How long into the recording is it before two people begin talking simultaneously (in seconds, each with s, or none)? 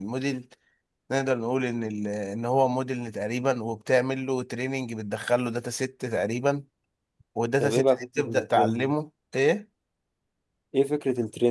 7.6 s